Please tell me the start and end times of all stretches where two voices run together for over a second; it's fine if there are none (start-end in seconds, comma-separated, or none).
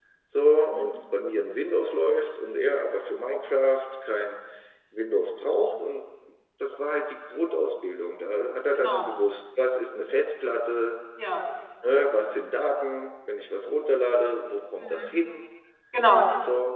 none